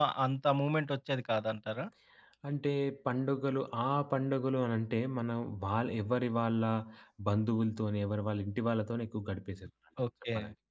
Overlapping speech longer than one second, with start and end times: none

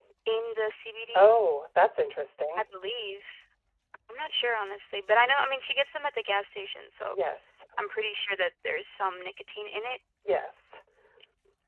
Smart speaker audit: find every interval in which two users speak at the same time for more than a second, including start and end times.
none

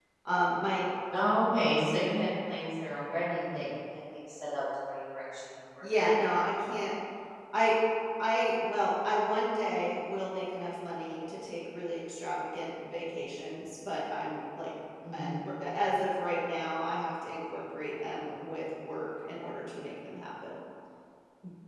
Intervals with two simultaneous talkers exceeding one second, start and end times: none

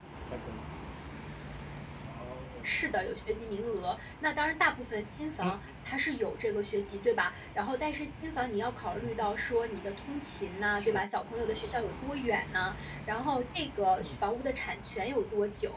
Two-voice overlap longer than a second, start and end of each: none

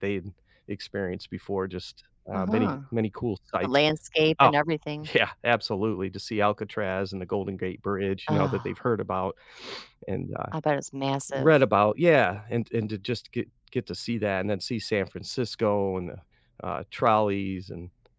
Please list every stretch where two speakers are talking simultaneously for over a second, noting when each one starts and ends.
none

